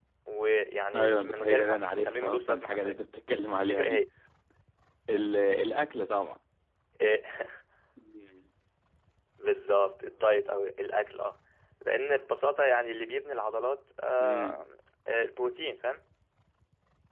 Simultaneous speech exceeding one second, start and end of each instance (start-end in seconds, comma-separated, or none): 0.9-3.0